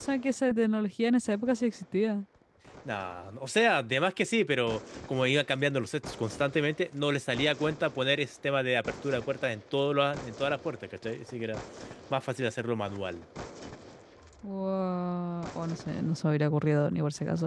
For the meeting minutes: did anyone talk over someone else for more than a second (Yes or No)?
No